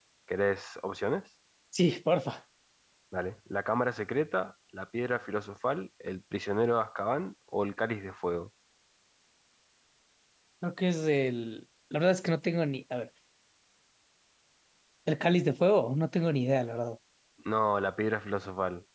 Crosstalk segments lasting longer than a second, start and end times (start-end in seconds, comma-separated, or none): none